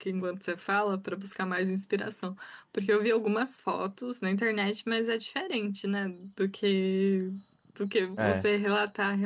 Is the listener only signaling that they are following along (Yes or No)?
Yes